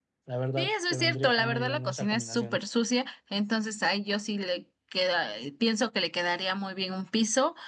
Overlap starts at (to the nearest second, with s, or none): 1 s